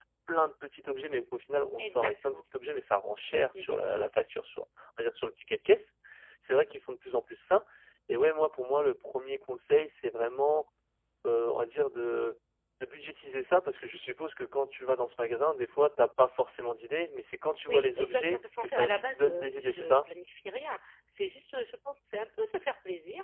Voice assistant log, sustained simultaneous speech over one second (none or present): present